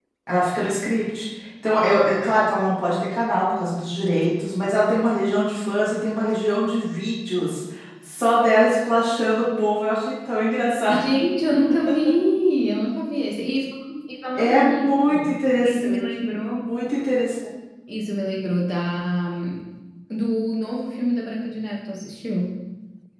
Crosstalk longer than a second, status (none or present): present